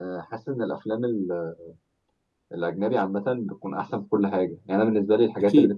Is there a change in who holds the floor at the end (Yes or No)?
No